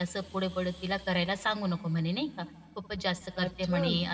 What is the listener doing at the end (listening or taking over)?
listening